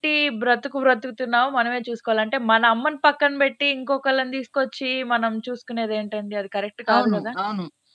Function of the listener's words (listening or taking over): taking over